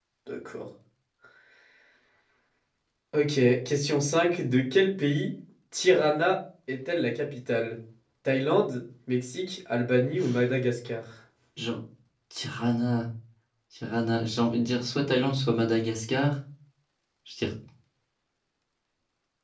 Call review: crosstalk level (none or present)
none